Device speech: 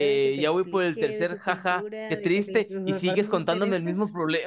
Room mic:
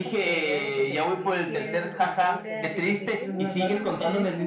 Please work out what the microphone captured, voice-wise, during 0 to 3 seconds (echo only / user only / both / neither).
both